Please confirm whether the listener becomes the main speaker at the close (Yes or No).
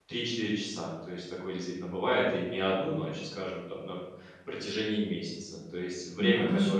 No